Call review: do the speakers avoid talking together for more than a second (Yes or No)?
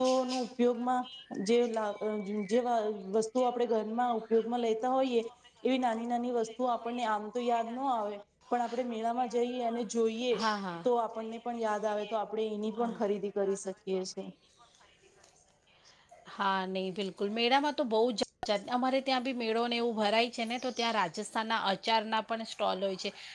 Yes